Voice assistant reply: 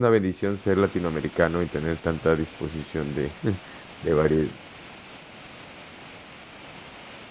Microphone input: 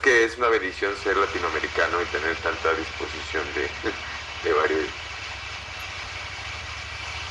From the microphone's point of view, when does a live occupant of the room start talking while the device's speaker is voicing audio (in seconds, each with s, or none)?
none